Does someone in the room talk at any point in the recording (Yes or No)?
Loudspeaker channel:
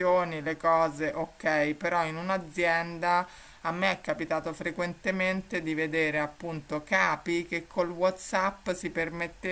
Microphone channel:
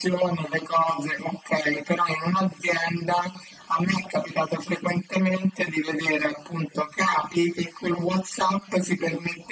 No